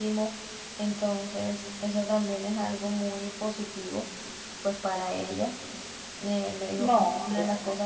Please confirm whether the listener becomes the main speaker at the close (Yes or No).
No